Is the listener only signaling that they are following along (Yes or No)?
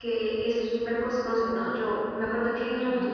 Yes